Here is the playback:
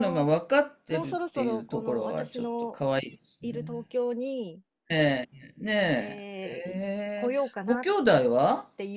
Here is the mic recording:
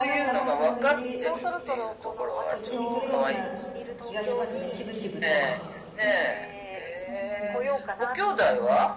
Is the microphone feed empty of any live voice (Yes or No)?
No